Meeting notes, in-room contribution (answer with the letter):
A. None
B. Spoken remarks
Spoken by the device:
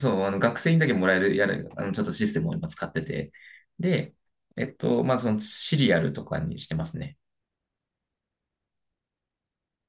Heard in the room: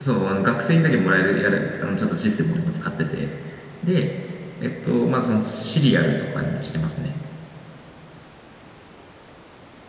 A